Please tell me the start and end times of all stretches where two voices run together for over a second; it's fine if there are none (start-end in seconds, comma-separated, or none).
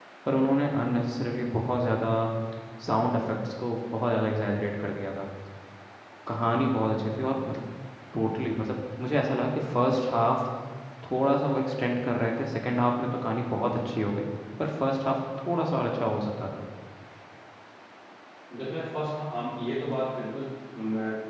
none